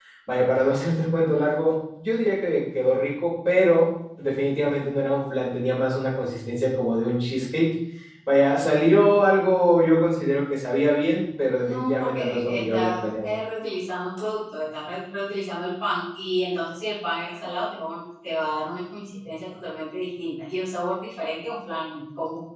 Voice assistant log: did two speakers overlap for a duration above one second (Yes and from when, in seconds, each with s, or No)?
Yes, from 11.6 s